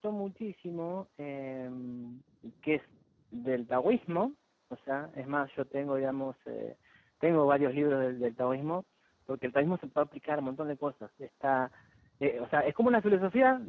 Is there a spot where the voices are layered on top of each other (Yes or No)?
No